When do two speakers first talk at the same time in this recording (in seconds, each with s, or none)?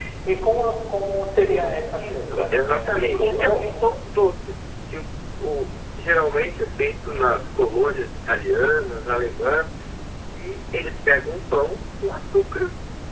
1.9 s